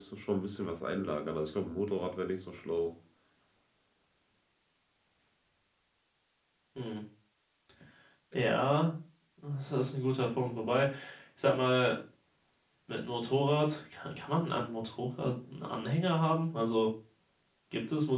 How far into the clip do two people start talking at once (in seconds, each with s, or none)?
none